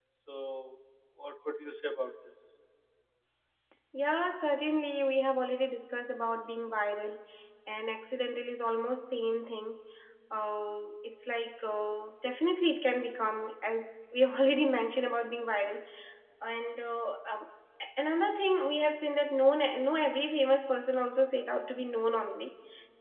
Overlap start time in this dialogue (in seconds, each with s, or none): none